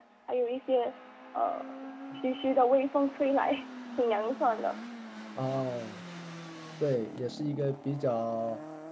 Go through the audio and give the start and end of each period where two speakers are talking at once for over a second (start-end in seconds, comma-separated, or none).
none